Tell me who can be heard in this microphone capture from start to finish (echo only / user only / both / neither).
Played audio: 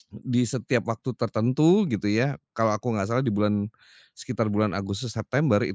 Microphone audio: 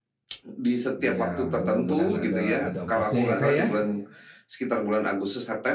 both